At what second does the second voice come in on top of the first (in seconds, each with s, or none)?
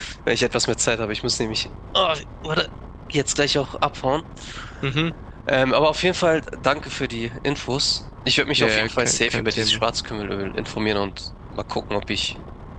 8.6 s